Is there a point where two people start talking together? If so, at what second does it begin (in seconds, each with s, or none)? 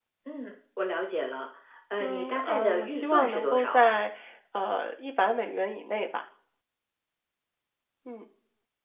2.0 s